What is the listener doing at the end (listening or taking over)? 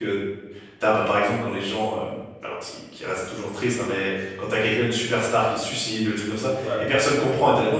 listening